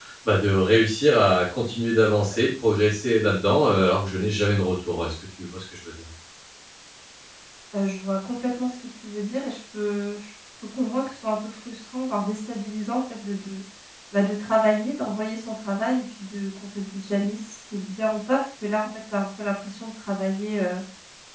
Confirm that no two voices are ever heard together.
Yes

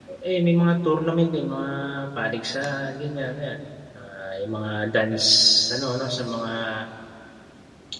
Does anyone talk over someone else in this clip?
No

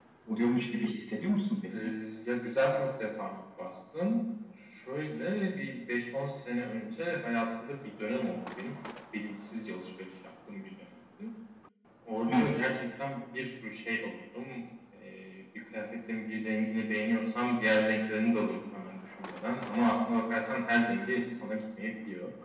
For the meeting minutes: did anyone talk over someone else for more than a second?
No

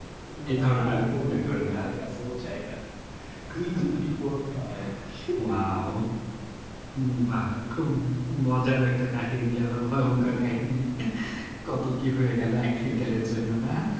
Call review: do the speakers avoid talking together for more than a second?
No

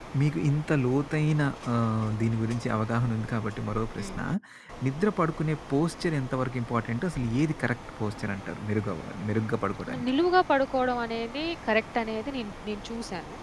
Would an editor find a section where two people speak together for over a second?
No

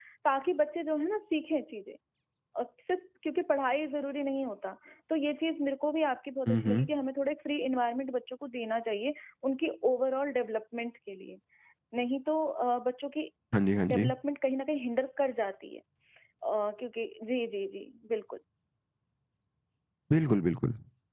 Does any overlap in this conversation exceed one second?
No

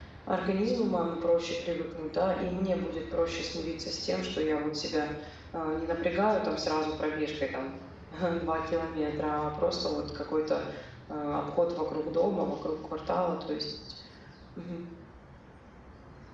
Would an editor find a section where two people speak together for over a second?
No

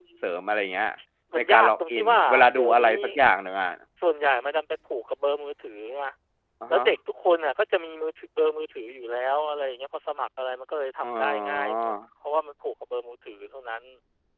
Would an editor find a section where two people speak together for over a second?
Yes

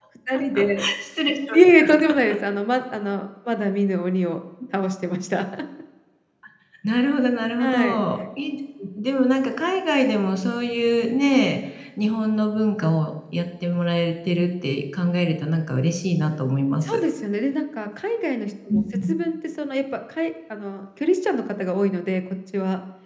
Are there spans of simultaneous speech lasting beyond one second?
No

